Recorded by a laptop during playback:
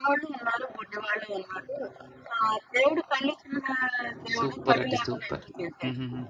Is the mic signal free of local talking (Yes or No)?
No